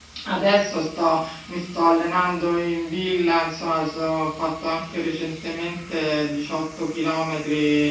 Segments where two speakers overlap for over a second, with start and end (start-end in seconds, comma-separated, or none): none